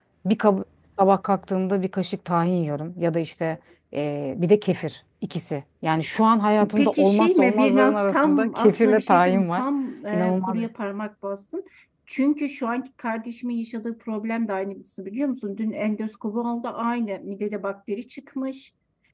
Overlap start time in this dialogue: 6.8 s

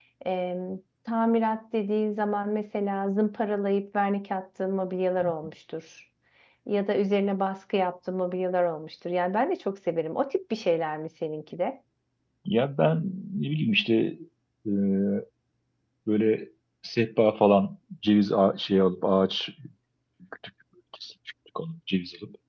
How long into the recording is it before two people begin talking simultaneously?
none

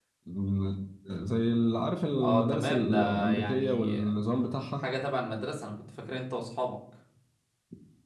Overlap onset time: 2.2 s

